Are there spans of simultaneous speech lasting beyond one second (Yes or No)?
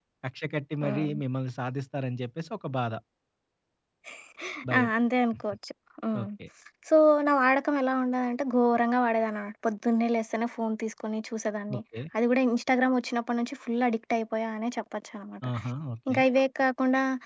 No